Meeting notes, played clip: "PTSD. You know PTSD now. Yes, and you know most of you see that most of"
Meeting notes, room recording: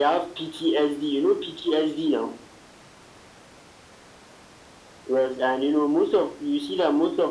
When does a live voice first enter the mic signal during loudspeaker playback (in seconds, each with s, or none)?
none